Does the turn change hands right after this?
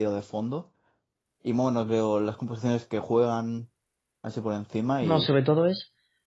Yes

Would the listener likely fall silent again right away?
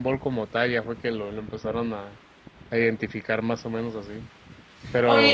No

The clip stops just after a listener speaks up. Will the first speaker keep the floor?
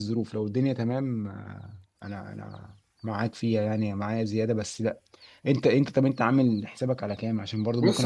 No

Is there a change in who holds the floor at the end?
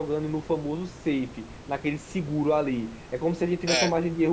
No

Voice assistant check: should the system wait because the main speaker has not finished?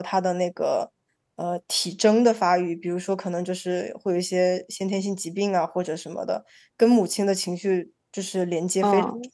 No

